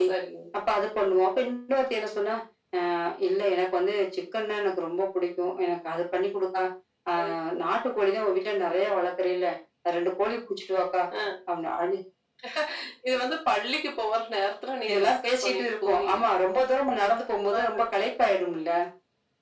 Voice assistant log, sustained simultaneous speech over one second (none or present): present